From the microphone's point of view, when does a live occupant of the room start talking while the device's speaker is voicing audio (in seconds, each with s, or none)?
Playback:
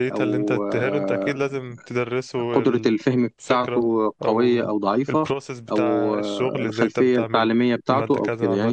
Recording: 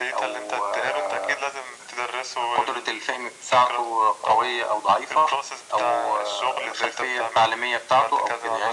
none